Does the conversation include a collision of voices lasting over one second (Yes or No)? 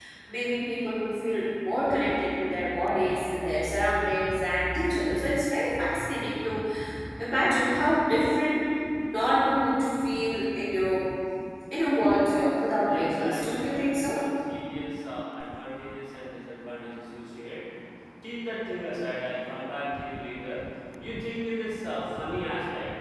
Yes